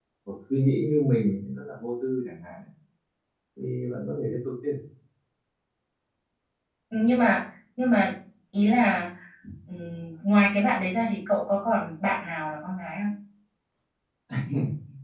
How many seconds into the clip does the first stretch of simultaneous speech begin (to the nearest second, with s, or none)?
none